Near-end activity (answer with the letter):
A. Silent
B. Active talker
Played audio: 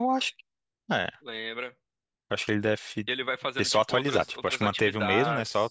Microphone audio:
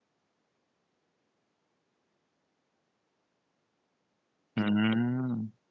B